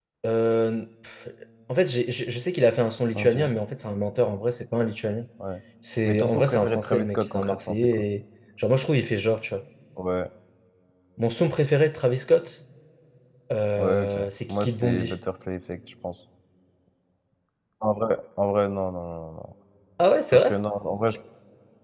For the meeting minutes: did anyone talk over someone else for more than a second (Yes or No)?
Yes